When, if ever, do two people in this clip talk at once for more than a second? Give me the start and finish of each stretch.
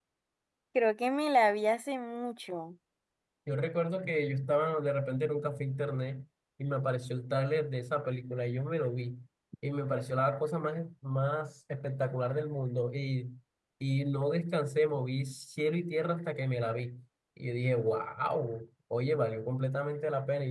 none

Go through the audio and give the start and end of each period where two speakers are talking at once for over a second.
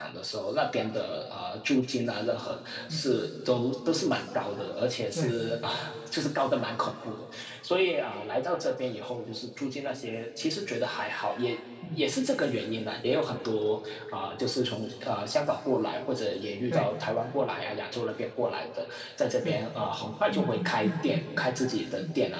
20.3-21.5

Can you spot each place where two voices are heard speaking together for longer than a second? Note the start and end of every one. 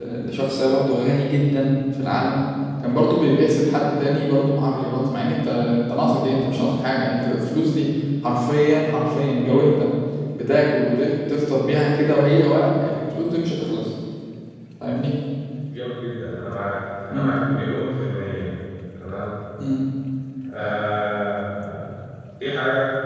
none

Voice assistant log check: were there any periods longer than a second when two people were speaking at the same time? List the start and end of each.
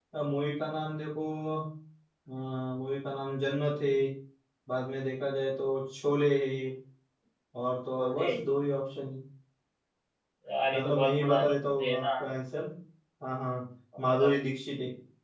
10.7-12.1

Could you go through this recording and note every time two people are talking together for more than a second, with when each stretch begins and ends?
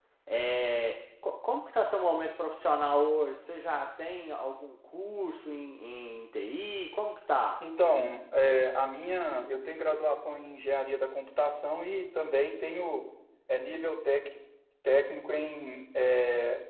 none

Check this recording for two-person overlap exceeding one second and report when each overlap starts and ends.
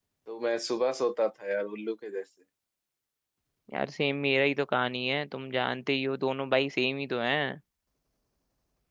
none

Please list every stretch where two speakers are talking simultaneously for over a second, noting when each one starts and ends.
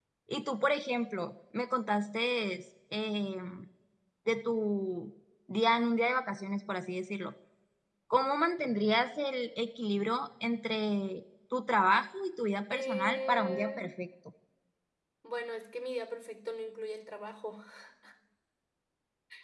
12.7-13.9

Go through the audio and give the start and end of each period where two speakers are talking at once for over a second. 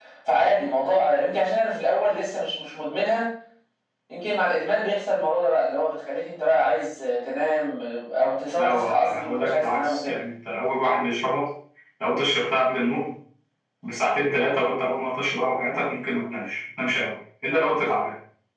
8.6-10.2

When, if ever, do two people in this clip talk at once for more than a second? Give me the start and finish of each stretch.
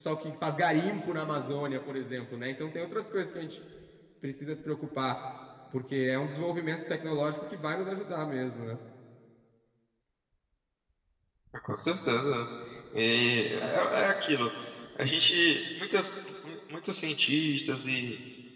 none

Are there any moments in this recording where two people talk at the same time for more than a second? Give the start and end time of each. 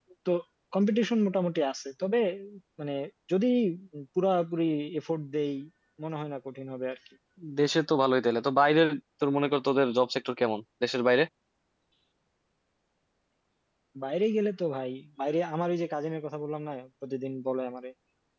none

